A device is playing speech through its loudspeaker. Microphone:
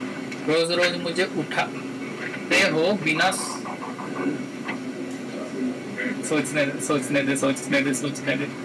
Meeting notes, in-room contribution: none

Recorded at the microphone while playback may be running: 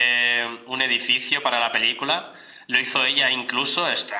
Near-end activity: none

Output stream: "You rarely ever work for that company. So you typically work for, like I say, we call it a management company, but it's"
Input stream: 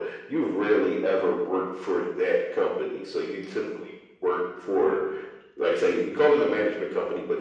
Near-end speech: none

